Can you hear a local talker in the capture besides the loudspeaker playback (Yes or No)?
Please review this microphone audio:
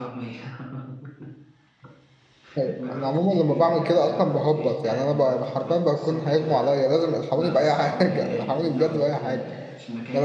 Yes